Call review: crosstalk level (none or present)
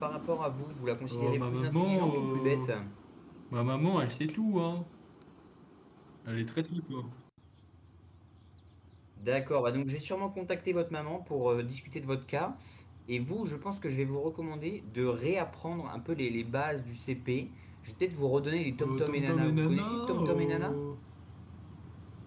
present